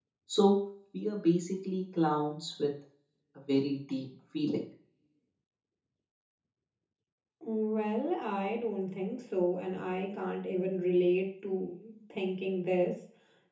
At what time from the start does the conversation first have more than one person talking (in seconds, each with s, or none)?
none